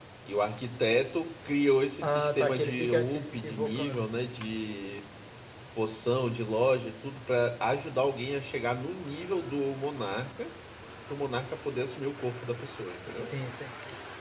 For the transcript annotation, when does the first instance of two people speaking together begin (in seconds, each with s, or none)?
2.0 s